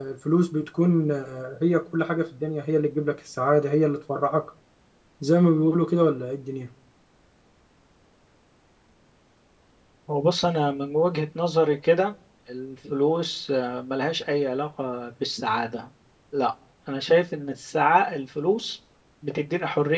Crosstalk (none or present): none